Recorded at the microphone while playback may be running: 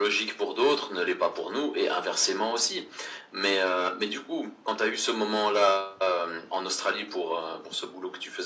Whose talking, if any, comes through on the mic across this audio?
echo only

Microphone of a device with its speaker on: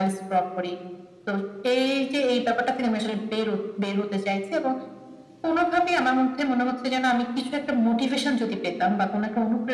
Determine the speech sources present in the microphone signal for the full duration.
echo only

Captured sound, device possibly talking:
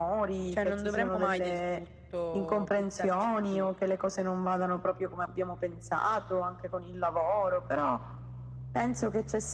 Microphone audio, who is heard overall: both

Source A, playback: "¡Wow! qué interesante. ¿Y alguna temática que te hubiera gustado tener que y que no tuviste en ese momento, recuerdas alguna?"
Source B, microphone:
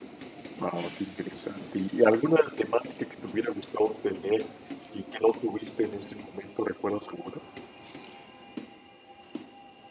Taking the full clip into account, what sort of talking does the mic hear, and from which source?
echo only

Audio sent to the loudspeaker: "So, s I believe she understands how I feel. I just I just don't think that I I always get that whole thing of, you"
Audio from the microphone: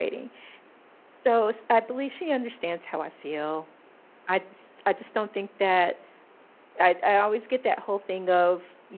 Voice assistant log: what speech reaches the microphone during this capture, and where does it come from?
echo only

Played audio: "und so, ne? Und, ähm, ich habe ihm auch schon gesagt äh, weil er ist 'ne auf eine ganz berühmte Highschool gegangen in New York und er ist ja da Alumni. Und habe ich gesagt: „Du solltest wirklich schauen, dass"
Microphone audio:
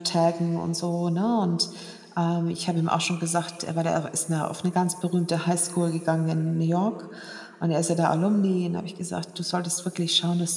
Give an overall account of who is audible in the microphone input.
echo only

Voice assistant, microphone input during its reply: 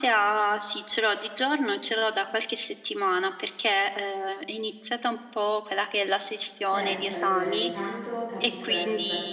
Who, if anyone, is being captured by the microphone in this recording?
both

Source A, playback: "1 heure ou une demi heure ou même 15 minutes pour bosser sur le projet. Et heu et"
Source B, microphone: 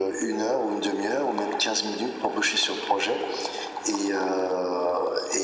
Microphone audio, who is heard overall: echo only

